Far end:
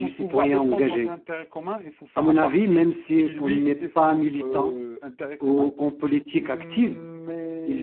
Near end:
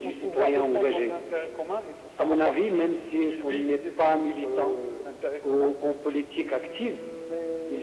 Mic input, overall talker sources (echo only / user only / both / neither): echo only